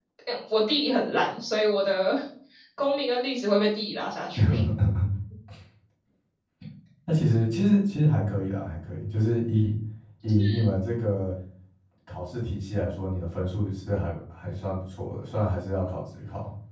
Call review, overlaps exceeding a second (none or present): none